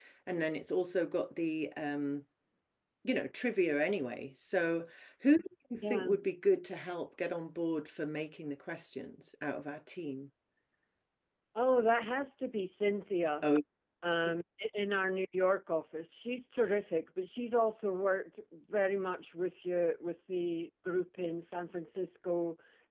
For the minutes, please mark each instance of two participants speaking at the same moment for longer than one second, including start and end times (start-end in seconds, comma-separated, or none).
none